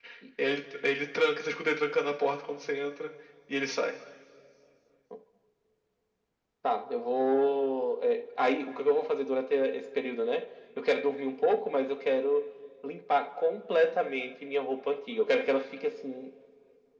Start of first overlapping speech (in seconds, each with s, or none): none